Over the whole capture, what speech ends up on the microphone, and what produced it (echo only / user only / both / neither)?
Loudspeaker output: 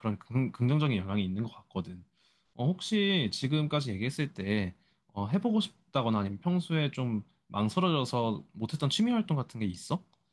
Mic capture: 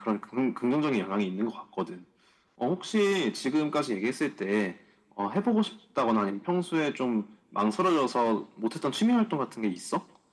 echo only